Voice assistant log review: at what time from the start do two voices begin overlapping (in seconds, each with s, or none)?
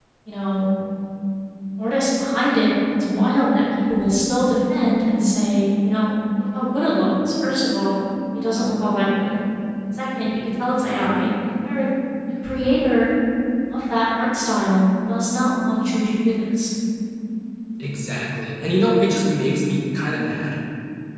none